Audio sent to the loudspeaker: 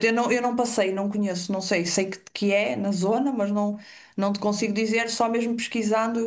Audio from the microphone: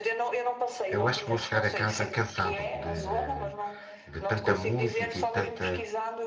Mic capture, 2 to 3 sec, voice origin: both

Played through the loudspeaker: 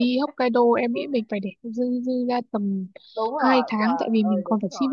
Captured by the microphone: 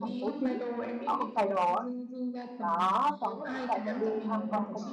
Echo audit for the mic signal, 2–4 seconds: both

